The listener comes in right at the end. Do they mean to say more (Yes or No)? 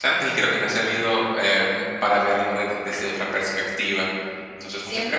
Yes